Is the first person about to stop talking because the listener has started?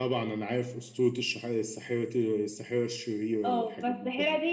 Yes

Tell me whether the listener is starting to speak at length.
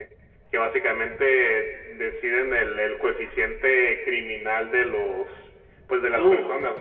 No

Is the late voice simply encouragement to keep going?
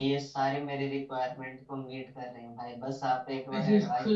No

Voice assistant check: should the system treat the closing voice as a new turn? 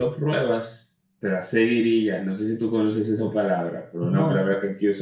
No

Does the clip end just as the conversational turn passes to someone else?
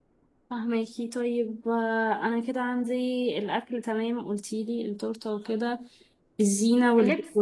No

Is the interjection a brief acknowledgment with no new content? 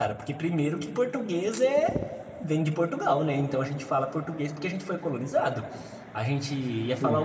Yes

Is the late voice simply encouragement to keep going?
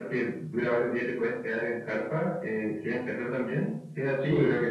No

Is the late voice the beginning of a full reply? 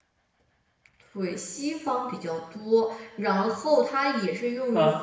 No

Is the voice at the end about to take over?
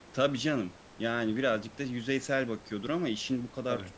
No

